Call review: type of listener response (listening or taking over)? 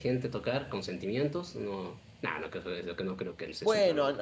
taking over